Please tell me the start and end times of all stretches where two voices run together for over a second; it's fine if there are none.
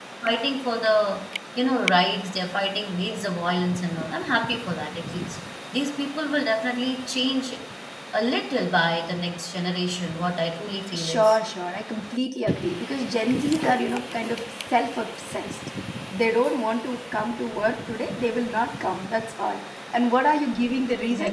none

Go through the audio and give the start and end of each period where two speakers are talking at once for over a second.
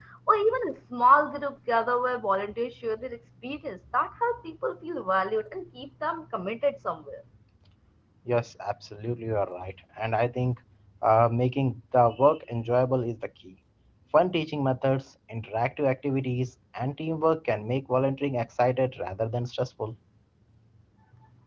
none

